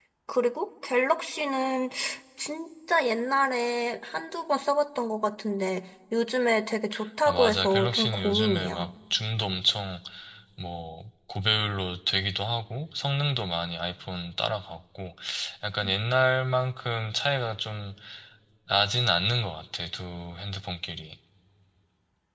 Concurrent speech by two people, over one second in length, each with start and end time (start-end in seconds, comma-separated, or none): 7.3-8.9